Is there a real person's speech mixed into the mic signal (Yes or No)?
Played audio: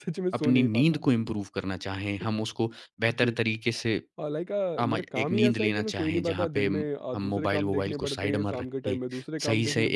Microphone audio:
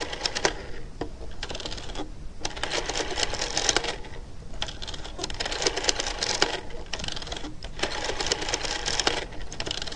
No